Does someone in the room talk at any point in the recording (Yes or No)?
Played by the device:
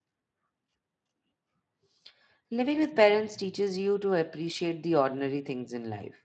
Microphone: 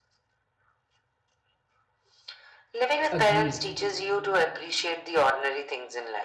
Yes